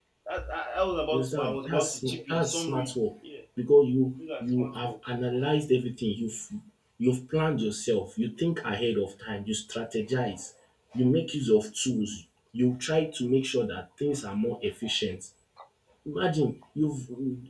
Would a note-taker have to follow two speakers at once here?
Yes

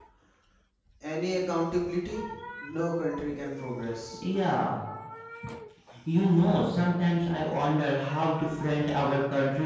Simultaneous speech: No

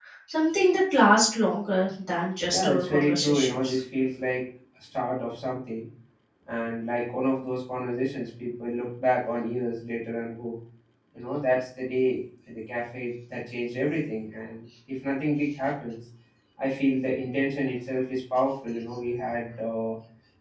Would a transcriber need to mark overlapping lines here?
Yes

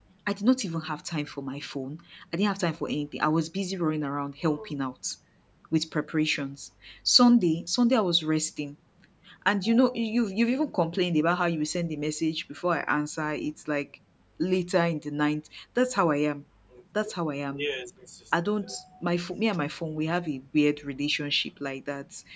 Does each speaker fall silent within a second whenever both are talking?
Yes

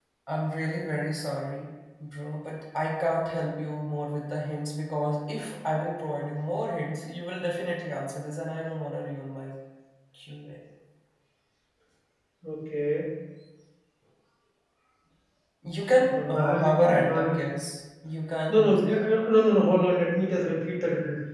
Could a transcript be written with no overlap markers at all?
No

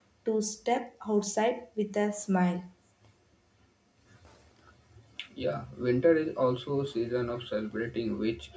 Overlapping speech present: No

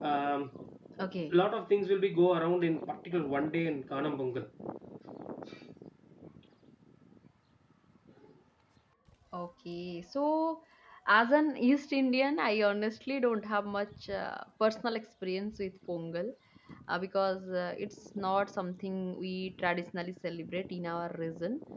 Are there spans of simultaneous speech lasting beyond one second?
No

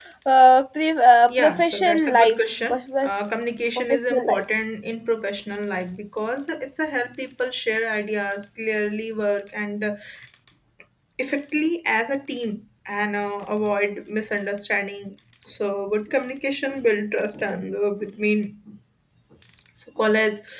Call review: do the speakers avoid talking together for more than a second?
No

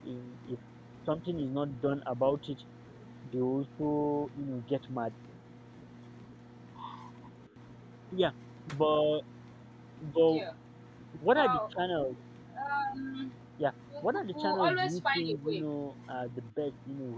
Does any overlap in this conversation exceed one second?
Yes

